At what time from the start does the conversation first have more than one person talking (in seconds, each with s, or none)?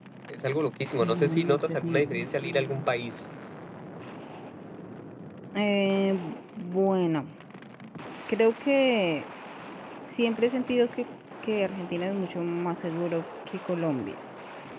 1.0 s